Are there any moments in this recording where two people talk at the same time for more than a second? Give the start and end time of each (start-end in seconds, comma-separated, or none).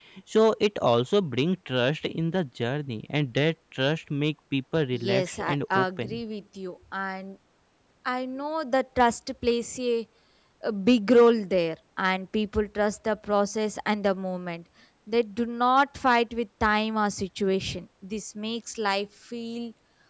4.9-6.2